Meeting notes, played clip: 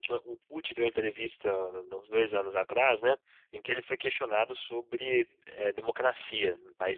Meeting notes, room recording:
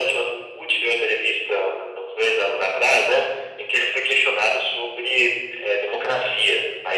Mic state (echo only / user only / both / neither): echo only